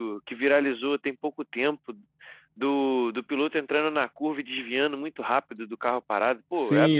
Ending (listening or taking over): taking over